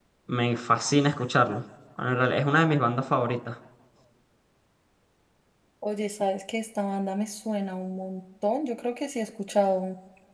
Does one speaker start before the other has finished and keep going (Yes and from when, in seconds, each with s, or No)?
No